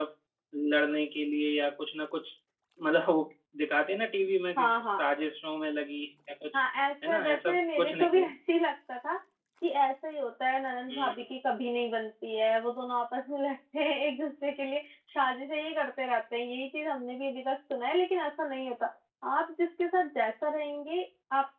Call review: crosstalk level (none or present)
present